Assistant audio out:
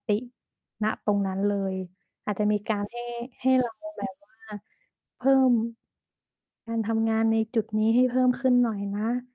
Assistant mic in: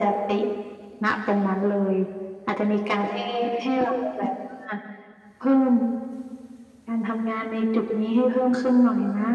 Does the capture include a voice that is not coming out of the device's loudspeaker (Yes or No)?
No